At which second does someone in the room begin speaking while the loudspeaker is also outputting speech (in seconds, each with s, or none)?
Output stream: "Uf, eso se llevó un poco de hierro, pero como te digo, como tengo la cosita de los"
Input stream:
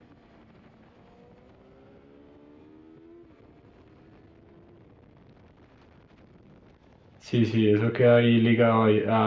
7.2 s